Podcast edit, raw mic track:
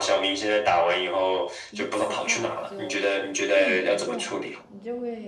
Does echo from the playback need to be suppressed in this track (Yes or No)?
Yes